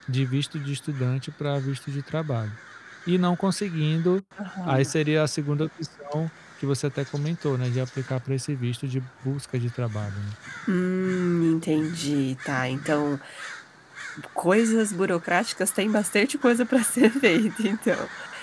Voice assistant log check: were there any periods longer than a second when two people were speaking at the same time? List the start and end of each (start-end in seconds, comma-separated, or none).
none